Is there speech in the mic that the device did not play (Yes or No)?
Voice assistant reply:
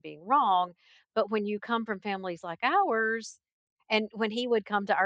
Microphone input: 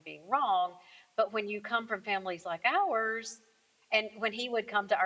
No